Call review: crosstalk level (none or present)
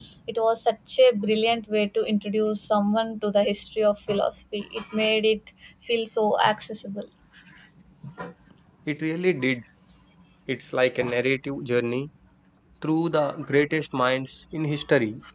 none